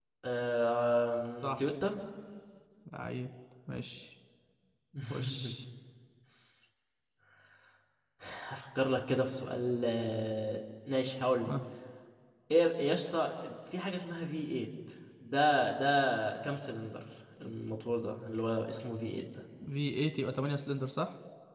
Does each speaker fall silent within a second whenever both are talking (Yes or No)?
Yes